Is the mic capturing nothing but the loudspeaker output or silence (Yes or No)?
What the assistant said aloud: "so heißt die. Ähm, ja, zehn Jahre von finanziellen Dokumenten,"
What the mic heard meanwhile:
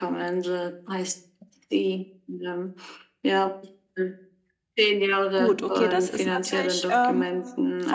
No